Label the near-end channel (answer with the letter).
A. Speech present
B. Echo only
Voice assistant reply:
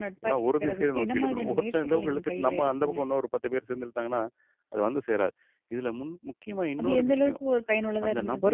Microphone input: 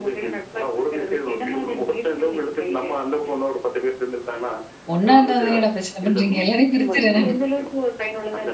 A